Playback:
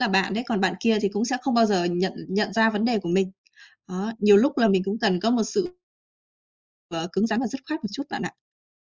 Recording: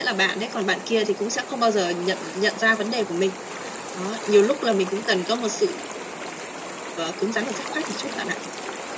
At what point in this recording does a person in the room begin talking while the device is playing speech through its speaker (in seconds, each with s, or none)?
none